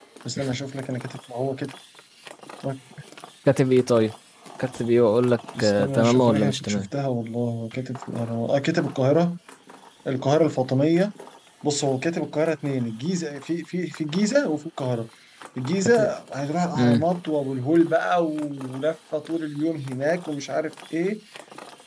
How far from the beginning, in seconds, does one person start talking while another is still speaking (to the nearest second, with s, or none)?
6 s